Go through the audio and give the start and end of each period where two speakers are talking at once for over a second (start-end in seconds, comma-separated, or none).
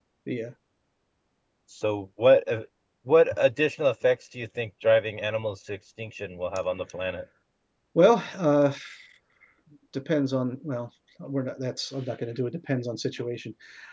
none